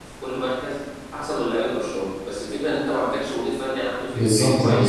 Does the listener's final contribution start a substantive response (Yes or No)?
Yes